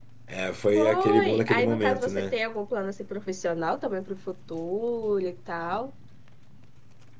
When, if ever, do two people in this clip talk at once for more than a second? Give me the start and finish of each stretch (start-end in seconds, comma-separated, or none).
0.7-2.3